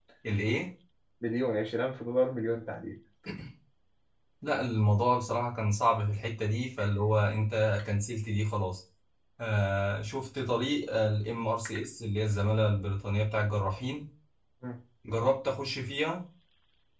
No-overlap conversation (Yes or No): Yes